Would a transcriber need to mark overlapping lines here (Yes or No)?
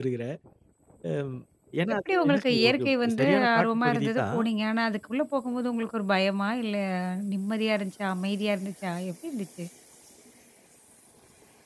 Yes